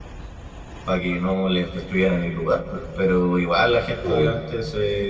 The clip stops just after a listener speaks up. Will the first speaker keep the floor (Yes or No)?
Yes